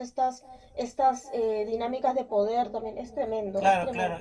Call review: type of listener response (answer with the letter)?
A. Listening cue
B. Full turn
B